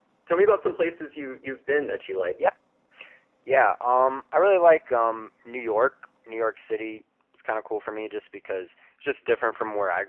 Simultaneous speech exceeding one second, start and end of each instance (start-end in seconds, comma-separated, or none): none